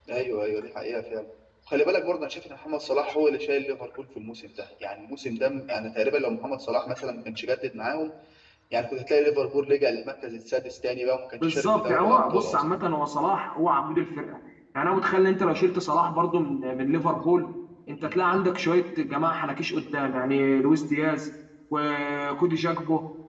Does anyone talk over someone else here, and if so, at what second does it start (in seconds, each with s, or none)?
11.4 s